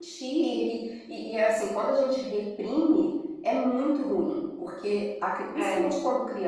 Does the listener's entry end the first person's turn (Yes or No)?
No